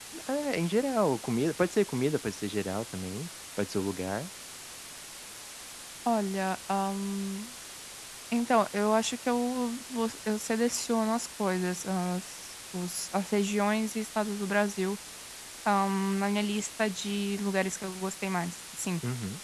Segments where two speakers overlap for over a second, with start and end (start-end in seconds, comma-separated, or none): none